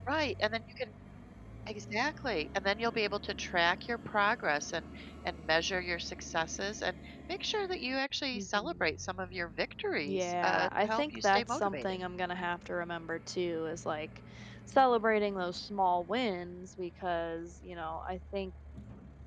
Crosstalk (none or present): present